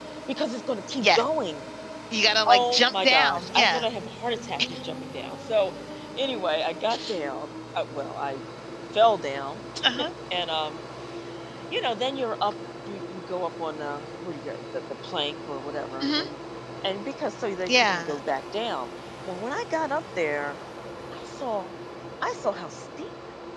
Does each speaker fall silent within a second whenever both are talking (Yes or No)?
No